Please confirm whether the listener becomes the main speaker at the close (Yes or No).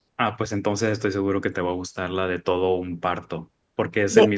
No